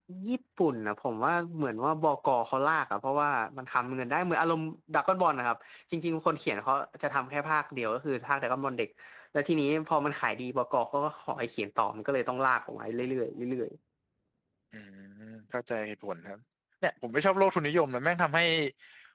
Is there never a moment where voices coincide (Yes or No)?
Yes